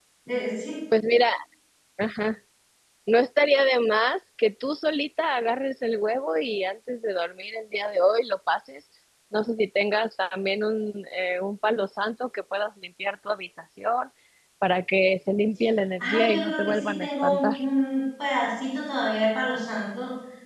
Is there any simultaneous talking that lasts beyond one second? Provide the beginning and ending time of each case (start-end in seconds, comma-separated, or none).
16.0-17.4